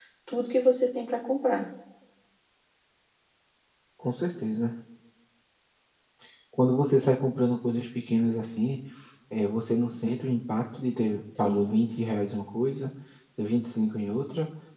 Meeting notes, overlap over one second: none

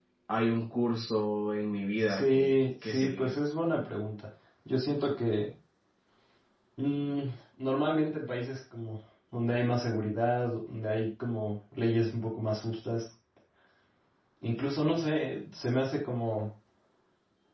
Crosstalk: present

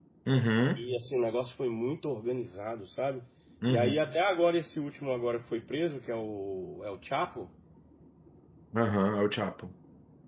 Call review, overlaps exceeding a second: none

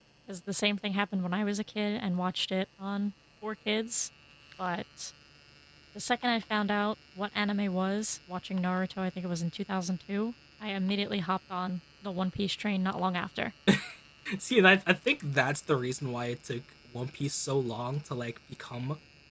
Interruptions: none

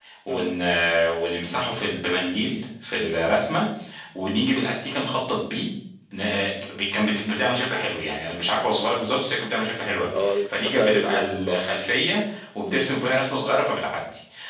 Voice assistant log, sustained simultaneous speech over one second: present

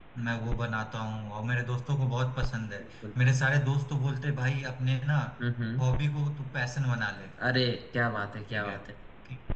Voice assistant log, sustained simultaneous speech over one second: none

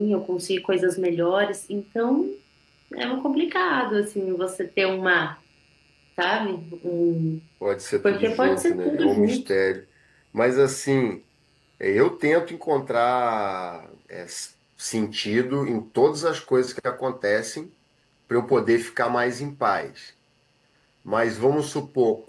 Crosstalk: present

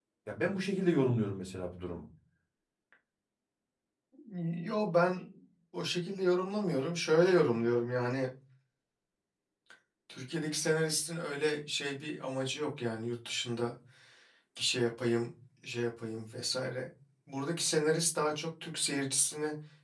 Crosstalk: none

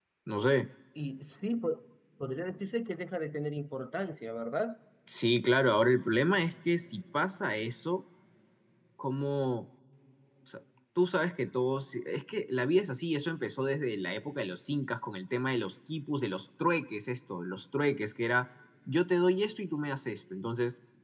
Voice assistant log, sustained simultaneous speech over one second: none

